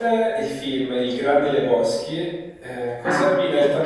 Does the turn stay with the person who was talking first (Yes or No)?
Yes